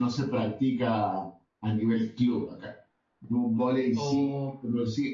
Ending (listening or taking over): listening